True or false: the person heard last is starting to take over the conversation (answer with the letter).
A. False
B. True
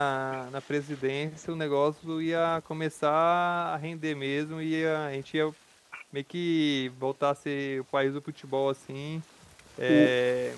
A